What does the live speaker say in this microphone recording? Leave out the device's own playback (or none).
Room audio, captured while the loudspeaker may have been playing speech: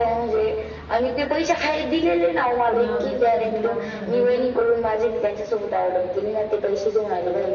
नवरायपक्का जीव लावणारा भेटेल,